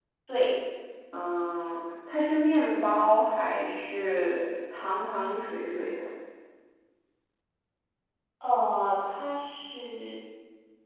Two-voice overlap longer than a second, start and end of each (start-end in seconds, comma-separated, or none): none